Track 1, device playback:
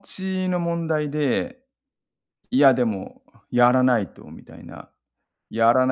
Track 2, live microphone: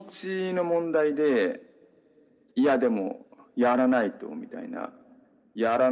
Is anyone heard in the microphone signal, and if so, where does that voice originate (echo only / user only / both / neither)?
echo only